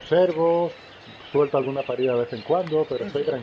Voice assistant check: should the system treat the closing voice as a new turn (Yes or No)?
No